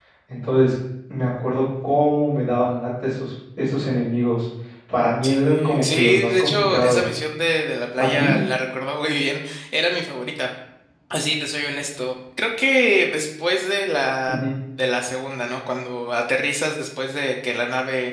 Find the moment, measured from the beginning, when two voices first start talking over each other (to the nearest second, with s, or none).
5 s